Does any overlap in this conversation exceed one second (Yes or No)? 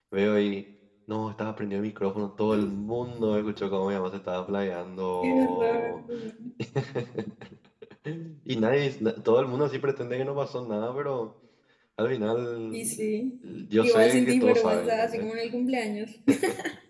Yes